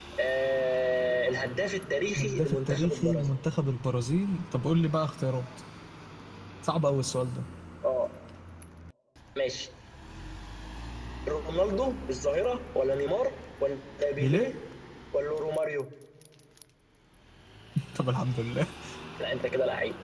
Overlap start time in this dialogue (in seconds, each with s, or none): 2.1 s